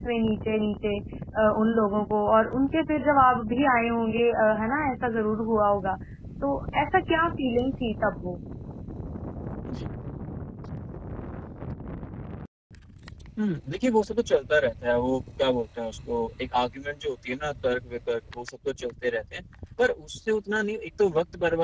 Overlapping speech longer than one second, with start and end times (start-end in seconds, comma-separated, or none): none